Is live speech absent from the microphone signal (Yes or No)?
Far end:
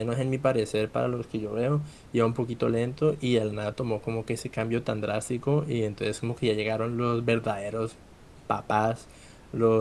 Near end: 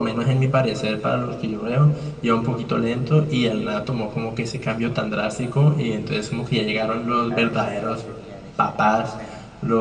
No